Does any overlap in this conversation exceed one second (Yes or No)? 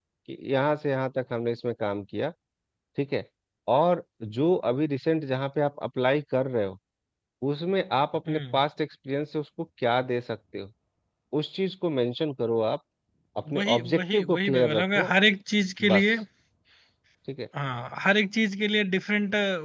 Yes